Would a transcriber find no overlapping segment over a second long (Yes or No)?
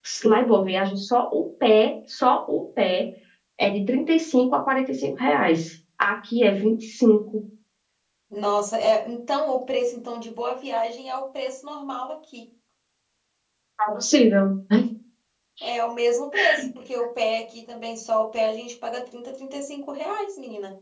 Yes